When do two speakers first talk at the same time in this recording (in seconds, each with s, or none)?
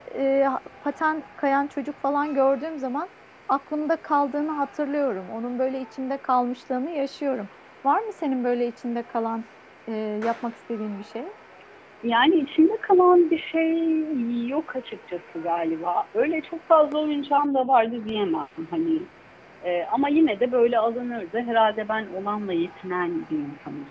none